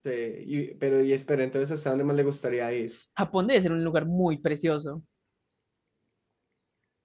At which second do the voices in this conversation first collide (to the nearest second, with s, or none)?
none